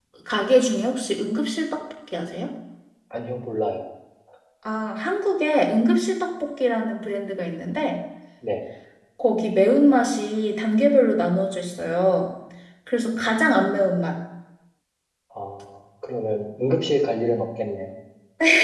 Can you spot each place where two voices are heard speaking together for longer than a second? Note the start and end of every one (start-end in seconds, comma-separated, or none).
none